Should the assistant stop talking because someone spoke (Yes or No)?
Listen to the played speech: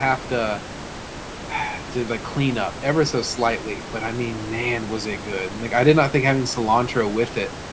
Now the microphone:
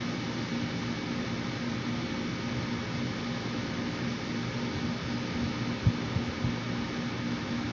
No